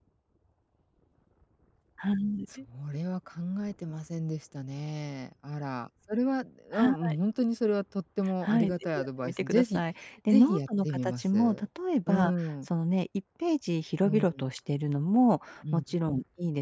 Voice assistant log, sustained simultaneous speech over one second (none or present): present